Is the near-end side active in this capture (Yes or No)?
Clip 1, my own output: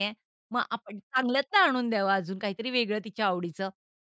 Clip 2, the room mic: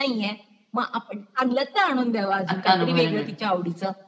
Yes